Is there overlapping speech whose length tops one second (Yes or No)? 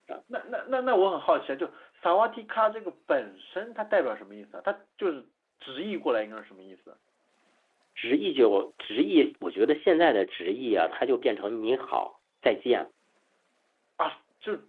No